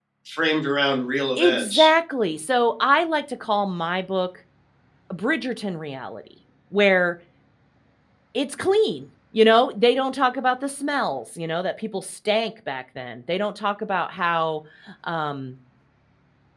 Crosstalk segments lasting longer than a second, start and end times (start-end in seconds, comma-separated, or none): none